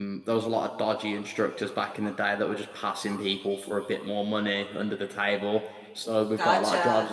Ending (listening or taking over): listening